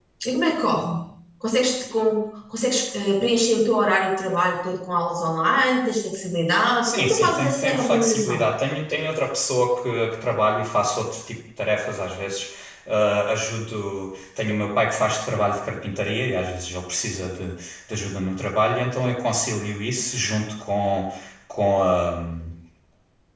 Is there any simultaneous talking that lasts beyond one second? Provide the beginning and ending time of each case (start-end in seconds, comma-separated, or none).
6.8-8.5